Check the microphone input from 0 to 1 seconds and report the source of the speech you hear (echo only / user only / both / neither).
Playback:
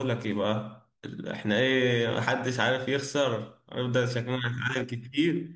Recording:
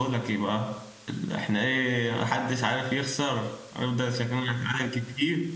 echo only